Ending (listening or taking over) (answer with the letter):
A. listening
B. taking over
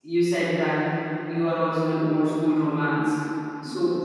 A